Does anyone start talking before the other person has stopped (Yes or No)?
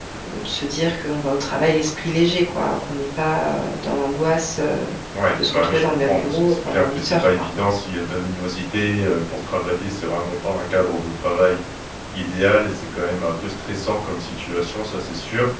Yes